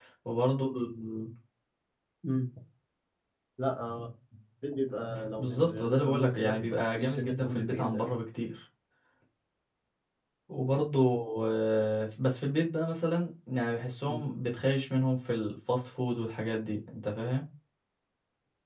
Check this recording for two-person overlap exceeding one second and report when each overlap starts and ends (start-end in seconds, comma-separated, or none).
5.4-8.1